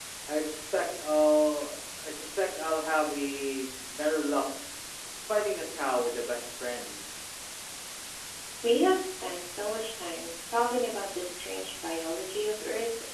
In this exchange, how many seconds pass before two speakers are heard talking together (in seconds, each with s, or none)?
none